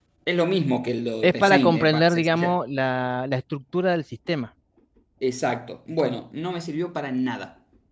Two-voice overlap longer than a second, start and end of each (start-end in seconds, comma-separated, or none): 1.2-2.6